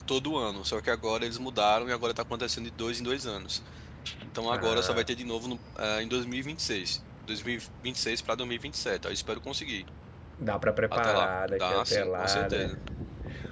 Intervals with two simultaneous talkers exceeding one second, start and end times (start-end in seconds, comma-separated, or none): 10.9-12.7